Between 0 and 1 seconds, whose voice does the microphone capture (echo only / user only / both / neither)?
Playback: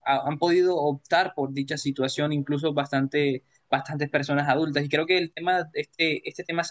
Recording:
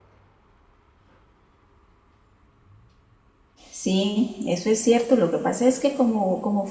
neither